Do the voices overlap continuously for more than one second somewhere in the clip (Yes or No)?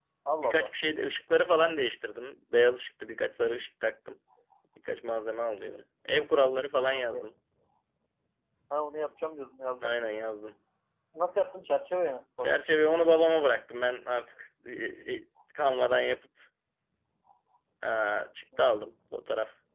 No